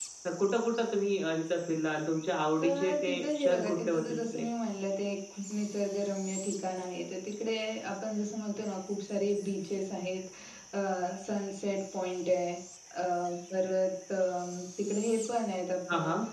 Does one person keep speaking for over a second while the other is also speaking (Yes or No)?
Yes